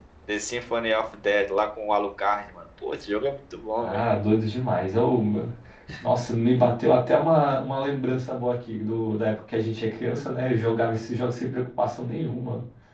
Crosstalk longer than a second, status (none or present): none